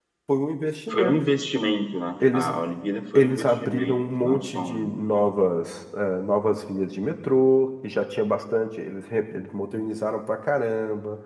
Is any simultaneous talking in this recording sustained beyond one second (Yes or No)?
Yes